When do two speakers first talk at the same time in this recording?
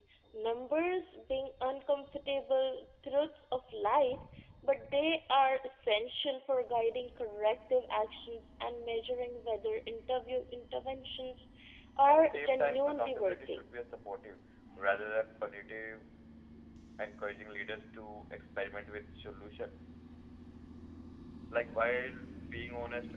12 s

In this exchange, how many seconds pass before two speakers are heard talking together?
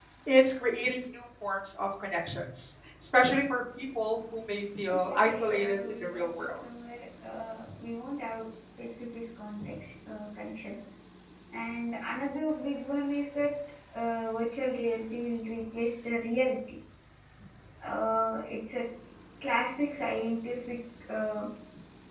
5 s

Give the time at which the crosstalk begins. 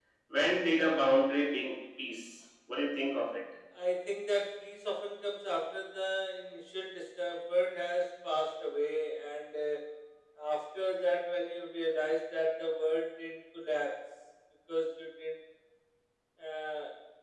none

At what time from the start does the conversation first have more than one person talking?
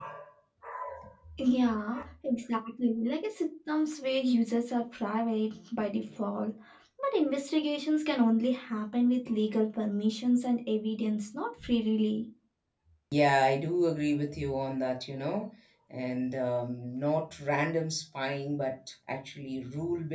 none

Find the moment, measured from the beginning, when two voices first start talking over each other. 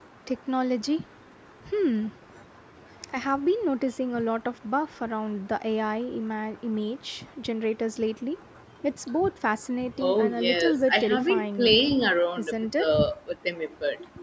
10 s

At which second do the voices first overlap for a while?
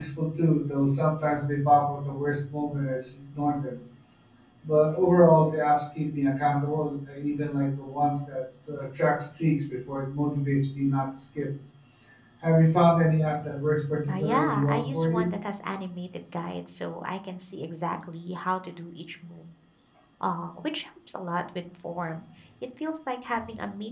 14 s

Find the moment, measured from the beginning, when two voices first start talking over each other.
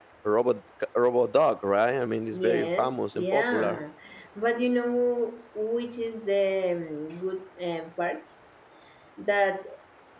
2 s

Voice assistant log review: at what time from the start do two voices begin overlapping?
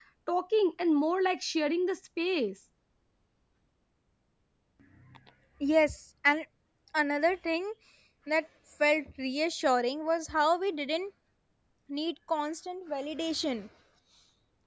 none

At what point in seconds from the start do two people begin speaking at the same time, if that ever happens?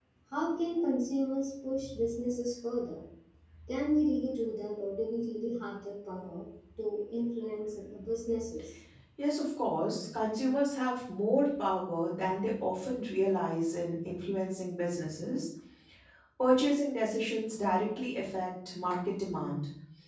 none

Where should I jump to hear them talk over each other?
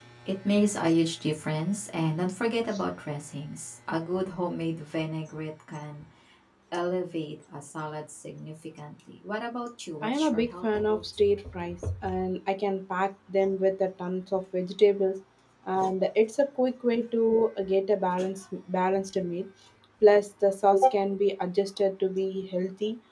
10 s

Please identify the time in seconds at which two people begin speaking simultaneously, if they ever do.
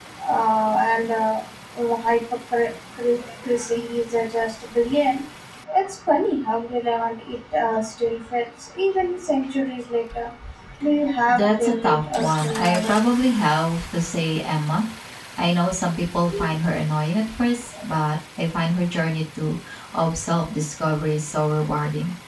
11 s

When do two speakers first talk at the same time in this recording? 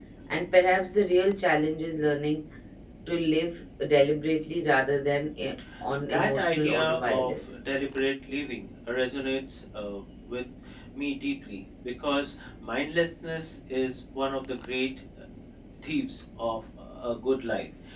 6 s

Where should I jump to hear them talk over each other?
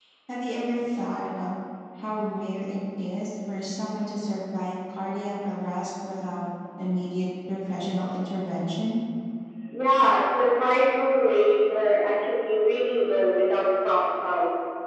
none

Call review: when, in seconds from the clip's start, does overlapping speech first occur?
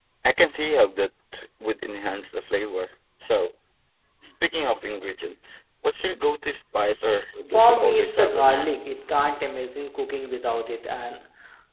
8 s

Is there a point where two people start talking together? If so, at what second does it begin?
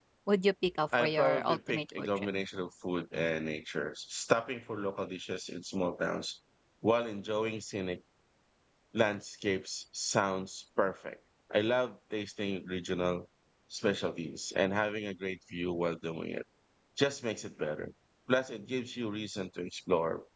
1 s

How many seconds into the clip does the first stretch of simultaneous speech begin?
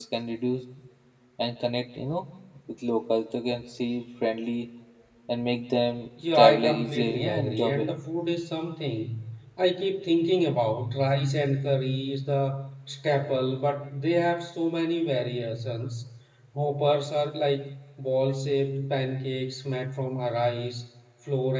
6 s

